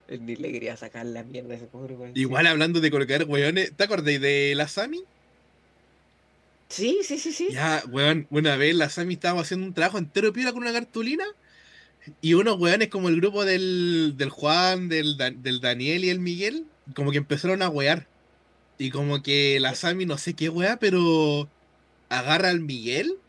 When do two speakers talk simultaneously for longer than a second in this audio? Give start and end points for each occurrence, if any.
none

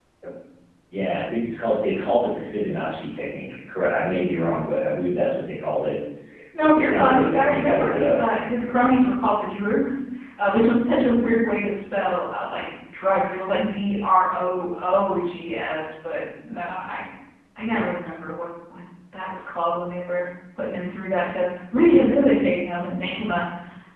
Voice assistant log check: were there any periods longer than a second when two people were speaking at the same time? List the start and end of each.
6.7-8.2

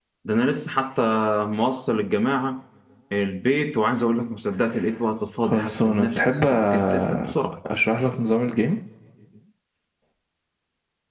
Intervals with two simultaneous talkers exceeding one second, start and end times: 5.4-7.3

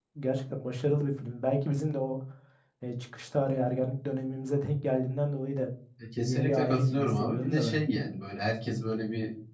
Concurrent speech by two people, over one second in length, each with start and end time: 6.2-7.8

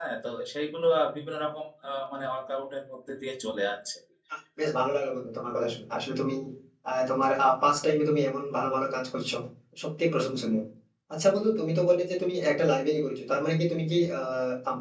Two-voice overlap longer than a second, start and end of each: none

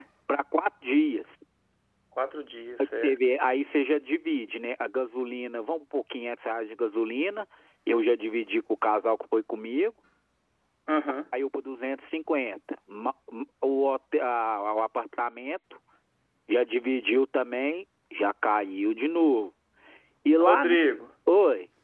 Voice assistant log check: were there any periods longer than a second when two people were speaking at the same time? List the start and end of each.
none

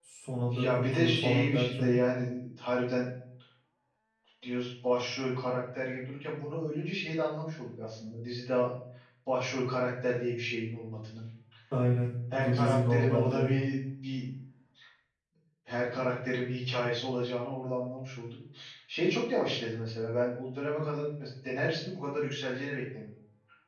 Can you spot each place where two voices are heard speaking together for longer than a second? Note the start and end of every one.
0.5-2.0, 12.3-13.5

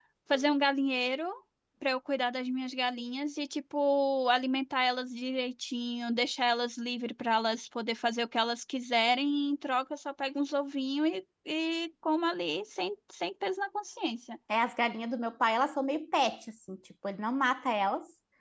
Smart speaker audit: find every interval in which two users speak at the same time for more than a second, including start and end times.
none

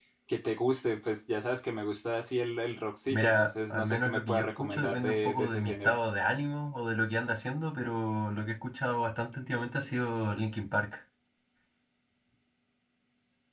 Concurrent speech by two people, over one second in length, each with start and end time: 3.1-6.0

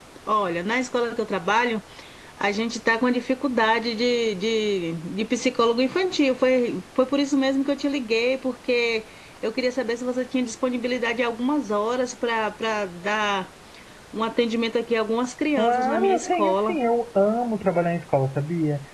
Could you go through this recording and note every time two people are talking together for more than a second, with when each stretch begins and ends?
15.5-16.8

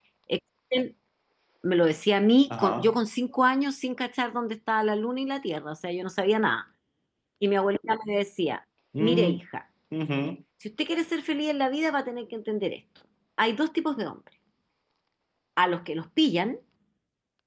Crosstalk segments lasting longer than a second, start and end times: none

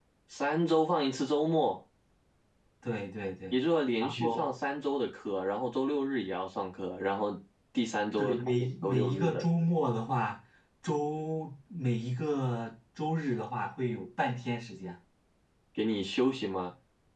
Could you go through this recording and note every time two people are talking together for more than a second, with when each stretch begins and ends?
8.2-9.4

